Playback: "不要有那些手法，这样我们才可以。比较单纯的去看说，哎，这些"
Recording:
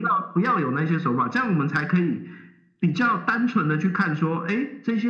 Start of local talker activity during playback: none

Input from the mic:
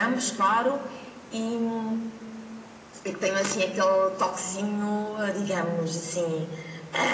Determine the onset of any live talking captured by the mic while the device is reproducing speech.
none

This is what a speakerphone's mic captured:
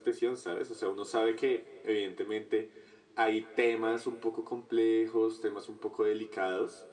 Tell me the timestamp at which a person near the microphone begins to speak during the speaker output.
none

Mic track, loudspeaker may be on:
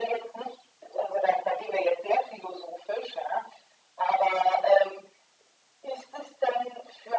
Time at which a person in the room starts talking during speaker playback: none

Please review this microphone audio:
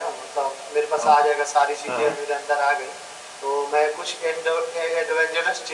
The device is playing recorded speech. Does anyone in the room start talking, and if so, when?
1.0 s

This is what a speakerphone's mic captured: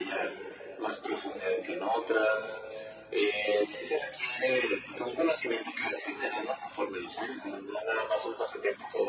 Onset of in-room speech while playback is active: none

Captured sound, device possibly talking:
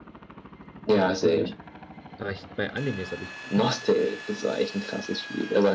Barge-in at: 0.9 s

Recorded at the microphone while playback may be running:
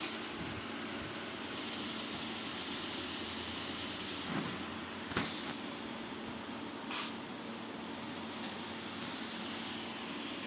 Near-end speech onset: none

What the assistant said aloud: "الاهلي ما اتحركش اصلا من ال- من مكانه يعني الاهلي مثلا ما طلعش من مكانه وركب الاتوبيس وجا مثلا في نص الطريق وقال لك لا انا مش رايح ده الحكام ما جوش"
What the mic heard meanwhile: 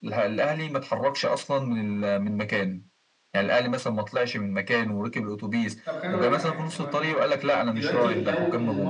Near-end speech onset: 5.8 s

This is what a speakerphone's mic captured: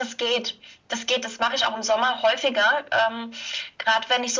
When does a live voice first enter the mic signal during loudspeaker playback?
none

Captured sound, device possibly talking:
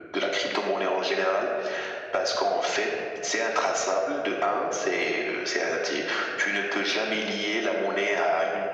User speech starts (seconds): none

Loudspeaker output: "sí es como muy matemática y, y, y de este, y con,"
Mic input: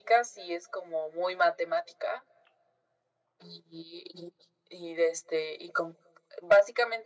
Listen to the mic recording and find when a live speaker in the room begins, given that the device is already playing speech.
none

